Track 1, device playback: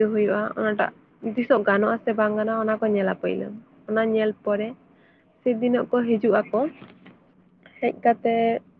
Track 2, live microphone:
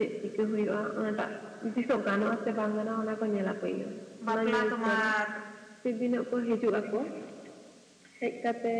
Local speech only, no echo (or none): ᱵᱟᱯᱞᱟ ᱛᱳᱢᱟᱨ